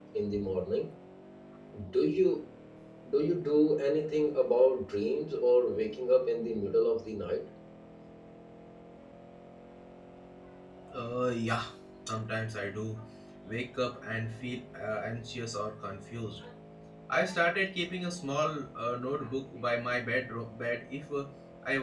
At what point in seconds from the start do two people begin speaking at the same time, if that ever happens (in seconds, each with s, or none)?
none